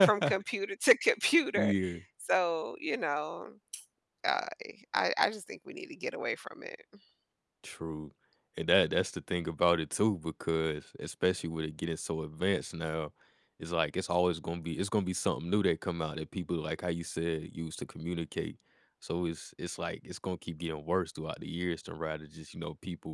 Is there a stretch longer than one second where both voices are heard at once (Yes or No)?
No